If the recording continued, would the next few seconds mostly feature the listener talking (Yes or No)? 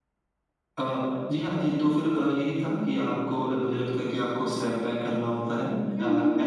Yes